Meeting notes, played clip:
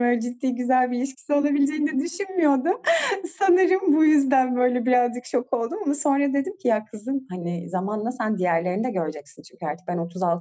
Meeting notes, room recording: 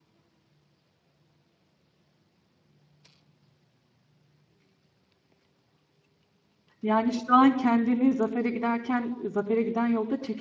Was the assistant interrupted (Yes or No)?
Yes